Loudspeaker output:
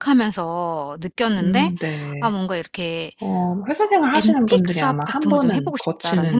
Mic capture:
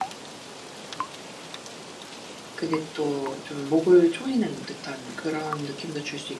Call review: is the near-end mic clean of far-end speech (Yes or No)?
Yes